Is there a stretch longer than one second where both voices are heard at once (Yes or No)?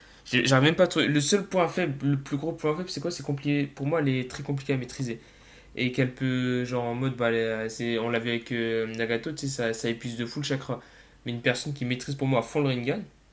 No